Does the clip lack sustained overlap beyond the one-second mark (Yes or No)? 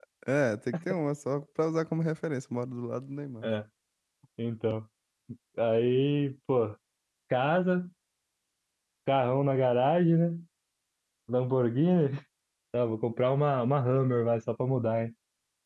Yes